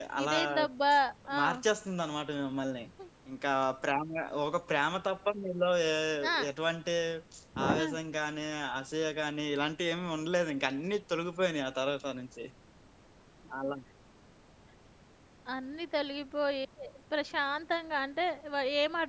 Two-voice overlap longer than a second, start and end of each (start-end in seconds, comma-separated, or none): none